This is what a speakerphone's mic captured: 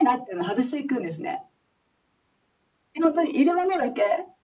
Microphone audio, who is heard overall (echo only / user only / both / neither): echo only